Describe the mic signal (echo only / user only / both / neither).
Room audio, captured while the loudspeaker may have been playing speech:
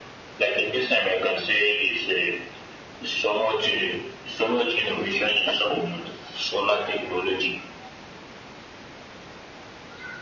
echo only